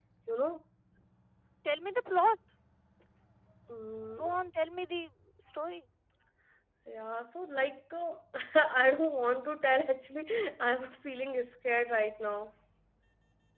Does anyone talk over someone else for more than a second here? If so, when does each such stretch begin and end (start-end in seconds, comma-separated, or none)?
none